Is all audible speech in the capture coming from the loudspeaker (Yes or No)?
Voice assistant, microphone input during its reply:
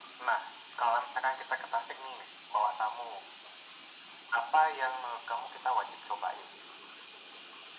Yes